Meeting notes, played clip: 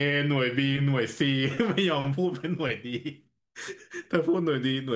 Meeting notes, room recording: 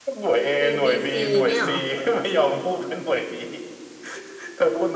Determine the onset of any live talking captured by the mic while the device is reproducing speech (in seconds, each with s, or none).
0.6 s